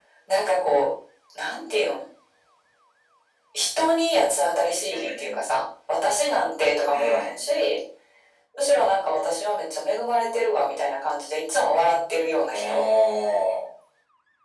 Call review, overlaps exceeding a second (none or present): none